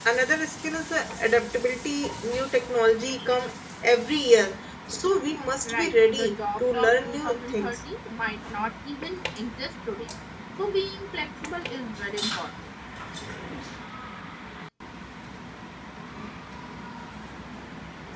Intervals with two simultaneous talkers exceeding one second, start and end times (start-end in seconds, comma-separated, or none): 5.6-7.8